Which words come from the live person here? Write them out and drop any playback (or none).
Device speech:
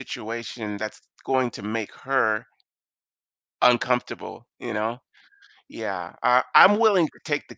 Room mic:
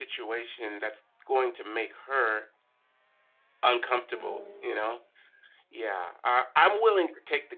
Hmm.